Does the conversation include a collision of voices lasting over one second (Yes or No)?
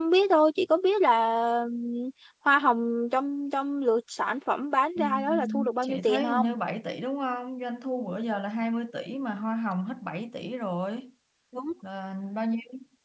Yes